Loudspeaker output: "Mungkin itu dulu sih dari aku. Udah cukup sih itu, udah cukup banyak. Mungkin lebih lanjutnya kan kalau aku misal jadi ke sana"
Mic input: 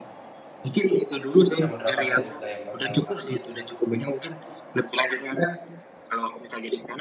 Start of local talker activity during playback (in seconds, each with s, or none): 1.6 s